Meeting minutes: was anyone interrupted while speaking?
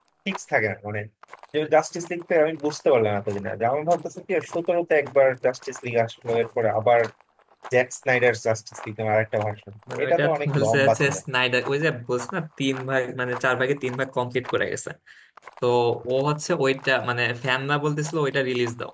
Yes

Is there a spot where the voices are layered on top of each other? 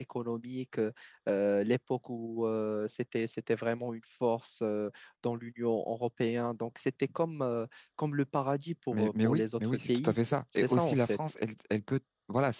Yes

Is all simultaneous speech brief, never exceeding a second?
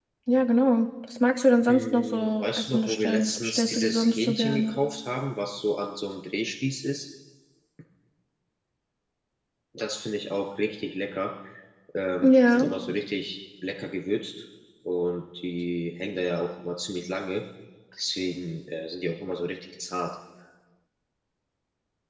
No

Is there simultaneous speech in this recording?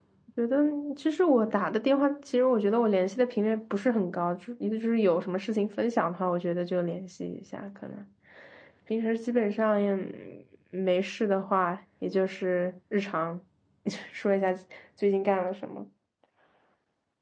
No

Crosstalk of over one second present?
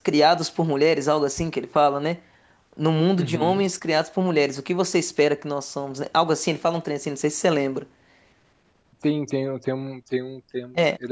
No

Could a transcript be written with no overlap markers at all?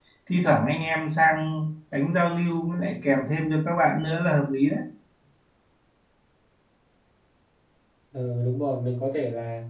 Yes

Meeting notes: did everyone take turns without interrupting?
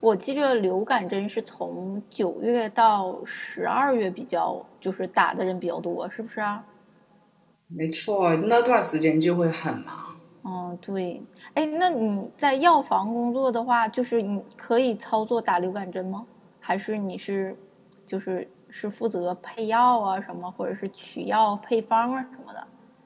Yes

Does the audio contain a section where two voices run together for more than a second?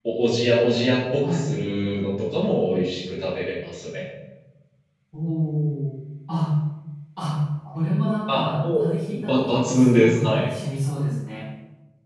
Yes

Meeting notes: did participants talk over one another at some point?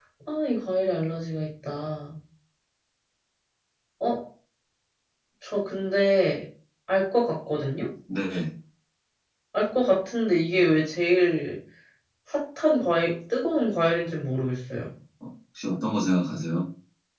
No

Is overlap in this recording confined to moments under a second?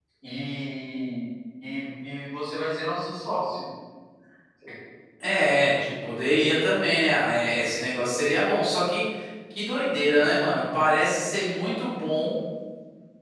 Yes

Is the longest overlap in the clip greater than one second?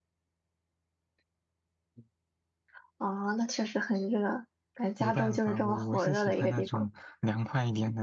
Yes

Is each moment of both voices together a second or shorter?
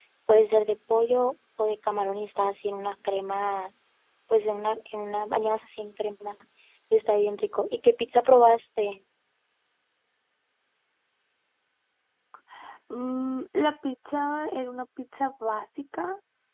Yes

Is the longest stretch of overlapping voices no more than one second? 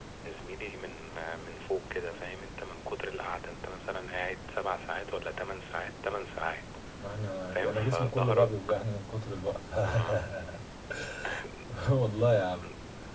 No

